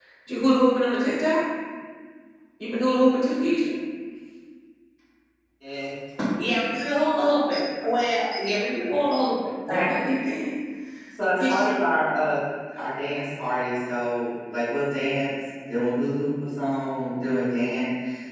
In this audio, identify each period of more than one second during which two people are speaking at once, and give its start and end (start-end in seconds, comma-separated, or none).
none